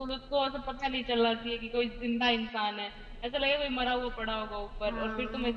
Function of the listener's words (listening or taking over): listening